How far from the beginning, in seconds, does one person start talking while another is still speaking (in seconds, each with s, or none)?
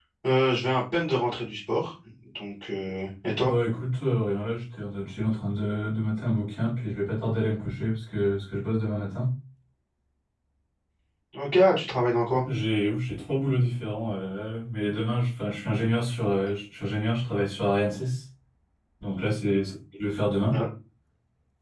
none